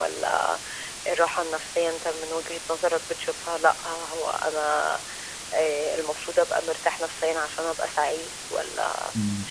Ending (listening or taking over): taking over